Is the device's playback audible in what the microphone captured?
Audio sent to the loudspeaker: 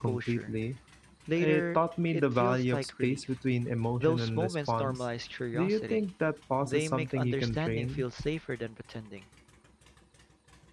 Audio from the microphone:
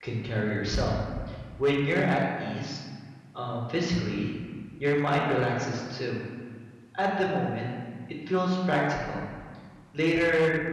No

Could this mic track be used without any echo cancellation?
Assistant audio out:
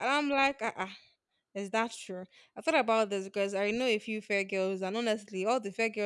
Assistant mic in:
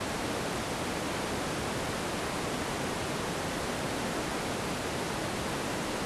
Yes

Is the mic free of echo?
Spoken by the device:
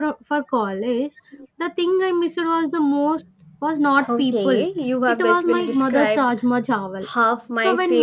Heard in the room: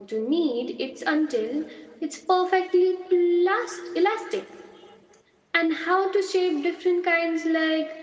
Yes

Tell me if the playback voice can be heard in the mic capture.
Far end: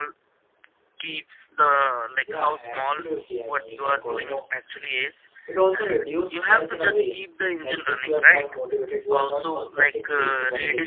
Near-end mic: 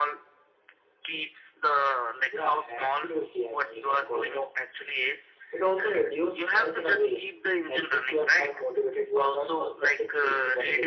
Yes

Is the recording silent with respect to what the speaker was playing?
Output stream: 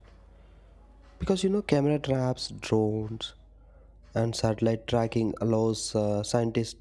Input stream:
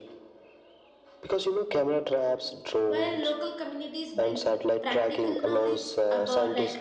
No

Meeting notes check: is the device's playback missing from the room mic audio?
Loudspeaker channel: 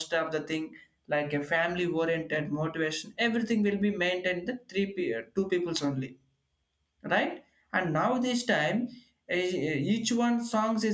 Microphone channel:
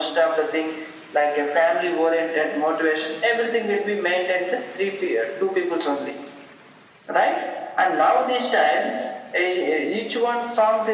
No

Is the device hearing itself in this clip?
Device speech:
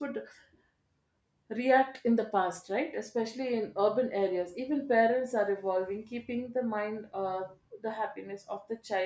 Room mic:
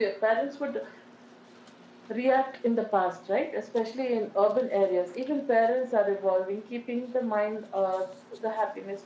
Yes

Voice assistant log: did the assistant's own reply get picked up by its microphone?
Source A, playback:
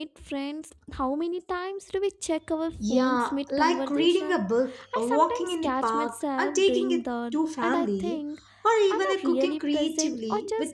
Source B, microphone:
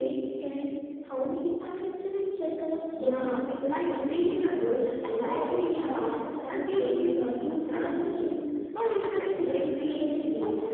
Yes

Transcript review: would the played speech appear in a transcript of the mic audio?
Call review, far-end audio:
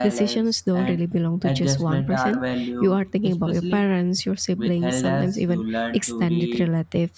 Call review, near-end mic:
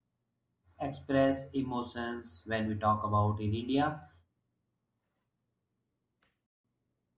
No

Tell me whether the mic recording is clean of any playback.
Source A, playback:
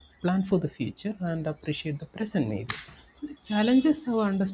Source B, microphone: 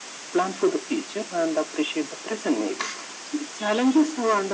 No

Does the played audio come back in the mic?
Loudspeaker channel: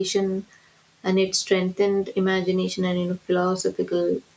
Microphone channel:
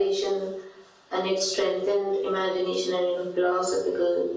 Yes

